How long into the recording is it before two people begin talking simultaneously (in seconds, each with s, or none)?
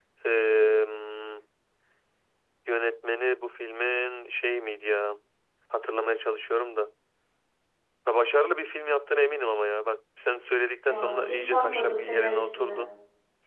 10.9 s